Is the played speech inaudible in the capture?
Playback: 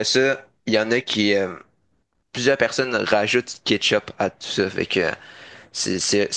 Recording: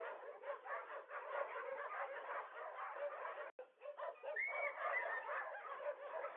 Yes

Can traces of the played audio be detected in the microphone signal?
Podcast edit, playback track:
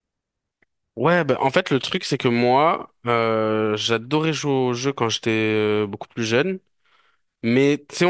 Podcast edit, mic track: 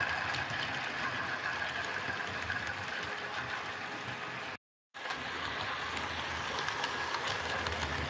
No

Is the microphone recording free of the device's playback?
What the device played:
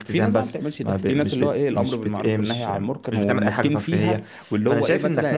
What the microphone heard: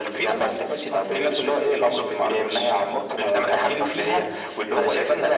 No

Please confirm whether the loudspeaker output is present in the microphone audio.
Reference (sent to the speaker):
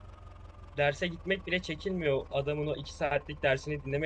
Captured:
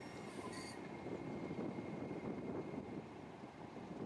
No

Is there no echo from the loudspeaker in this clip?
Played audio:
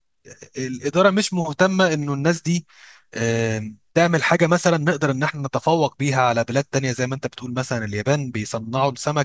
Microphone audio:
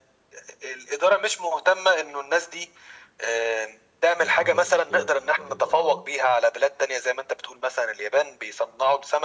No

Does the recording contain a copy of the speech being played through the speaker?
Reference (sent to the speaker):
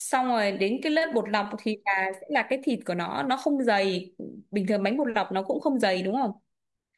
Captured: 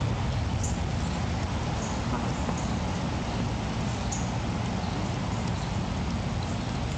No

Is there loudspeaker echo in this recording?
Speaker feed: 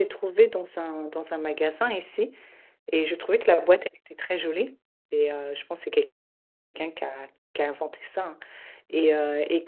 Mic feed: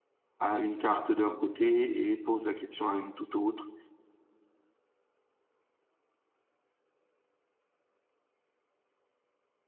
No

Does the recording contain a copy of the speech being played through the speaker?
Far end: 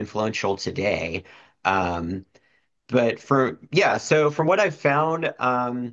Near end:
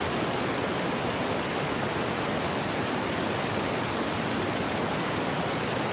No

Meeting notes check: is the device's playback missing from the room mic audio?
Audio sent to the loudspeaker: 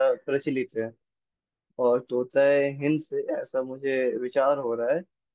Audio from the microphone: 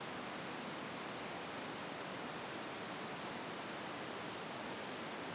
Yes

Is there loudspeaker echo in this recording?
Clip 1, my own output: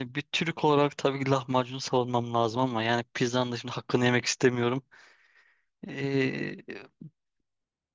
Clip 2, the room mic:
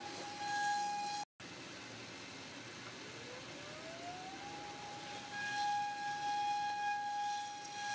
No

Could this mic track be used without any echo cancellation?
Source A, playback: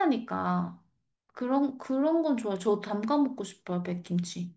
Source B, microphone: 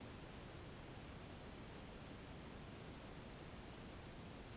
Yes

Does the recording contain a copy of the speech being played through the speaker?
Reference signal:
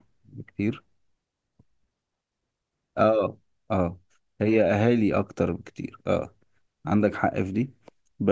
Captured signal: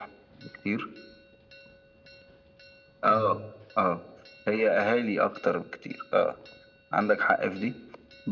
Yes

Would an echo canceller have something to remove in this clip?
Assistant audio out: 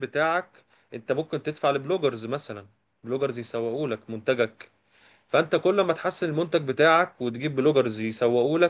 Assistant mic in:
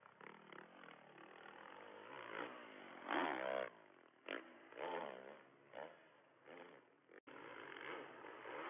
No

